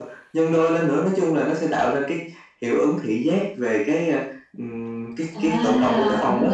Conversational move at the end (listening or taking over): taking over